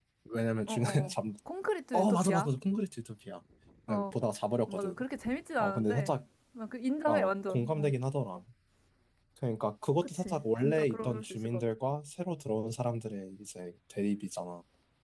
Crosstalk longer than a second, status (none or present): present